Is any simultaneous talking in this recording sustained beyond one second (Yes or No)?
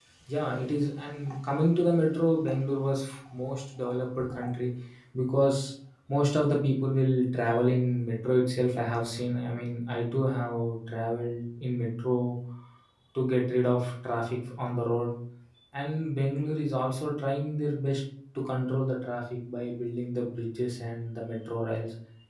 No